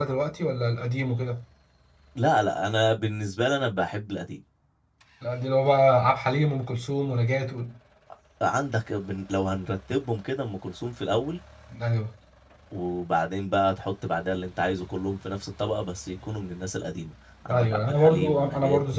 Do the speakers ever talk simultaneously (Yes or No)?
Yes